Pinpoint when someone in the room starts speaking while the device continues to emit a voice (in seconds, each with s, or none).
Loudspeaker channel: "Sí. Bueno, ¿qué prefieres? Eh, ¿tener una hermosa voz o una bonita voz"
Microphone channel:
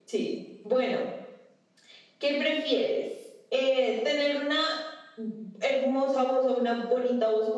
none